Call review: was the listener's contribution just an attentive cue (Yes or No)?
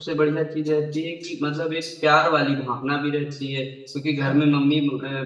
Yes